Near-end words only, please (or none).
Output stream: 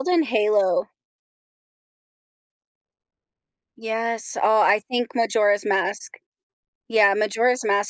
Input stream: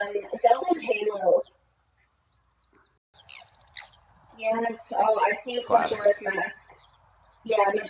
It's classic.